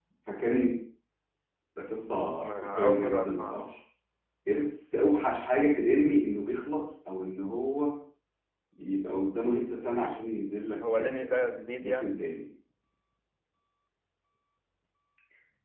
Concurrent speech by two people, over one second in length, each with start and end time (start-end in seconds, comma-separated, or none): 2.4-3.6, 10.8-12.2